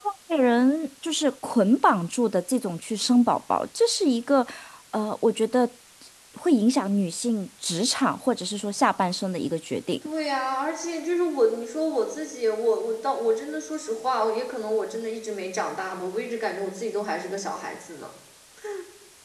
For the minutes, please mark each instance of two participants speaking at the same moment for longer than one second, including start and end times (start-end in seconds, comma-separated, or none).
none